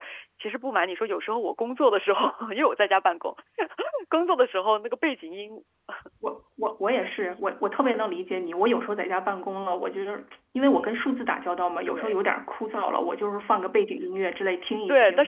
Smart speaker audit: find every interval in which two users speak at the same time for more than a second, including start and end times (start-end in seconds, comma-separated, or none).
none